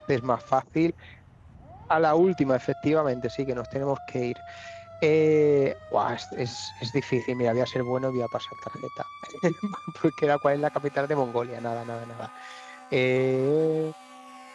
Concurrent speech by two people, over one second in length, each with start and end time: none

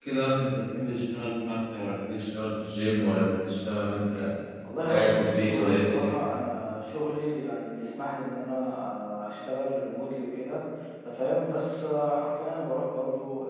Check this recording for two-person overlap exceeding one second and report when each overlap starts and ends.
4.9-6.2

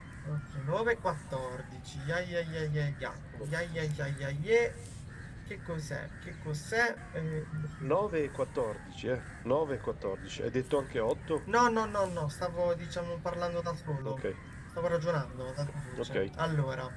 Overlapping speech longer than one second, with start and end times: none

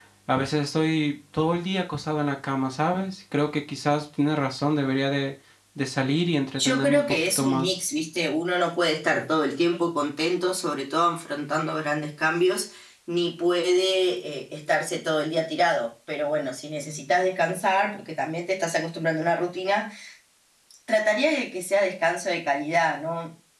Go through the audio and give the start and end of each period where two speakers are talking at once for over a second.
6.6-7.8

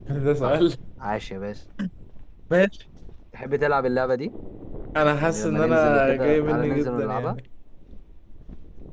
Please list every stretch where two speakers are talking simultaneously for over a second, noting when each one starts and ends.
5.2-7.4

